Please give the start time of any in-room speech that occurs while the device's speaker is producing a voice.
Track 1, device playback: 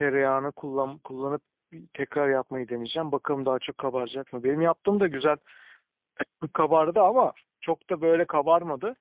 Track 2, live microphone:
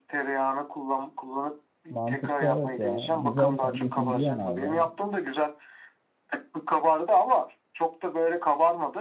1.9 s

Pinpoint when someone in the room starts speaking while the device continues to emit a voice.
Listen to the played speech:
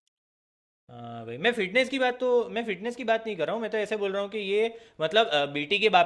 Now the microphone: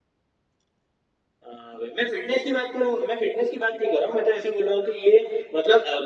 none

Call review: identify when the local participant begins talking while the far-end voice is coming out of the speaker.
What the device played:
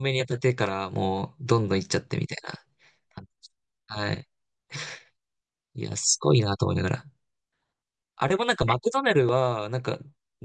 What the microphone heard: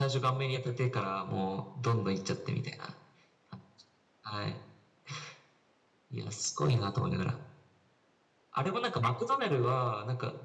none

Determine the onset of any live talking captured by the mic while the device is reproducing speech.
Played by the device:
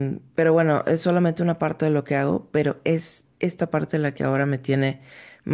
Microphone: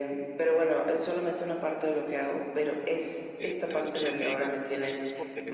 3.4 s

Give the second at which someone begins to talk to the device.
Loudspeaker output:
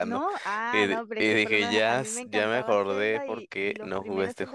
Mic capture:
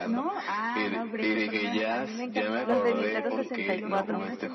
2.6 s

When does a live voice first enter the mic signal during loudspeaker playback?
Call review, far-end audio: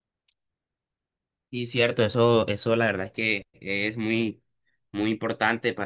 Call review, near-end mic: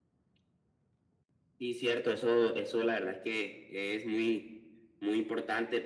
none

